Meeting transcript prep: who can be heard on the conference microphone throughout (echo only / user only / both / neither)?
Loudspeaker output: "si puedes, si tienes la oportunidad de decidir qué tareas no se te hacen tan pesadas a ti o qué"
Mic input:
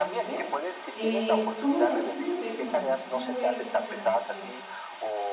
both